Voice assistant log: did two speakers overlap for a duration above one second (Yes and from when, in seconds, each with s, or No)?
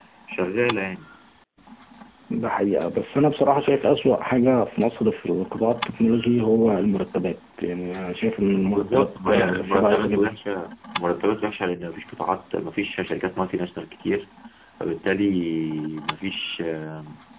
Yes, from 8.6 s